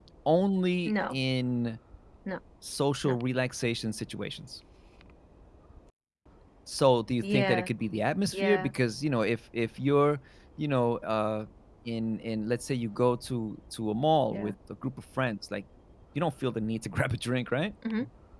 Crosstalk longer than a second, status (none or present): none